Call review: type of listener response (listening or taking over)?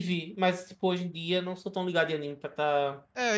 taking over